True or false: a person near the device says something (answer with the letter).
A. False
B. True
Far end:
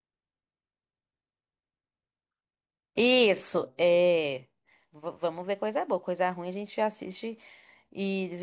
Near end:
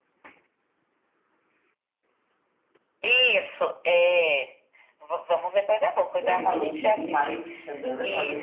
B